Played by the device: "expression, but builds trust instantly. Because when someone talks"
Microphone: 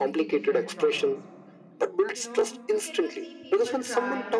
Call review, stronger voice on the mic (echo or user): echo